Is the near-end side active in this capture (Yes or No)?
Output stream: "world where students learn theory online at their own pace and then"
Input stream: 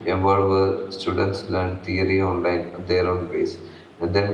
No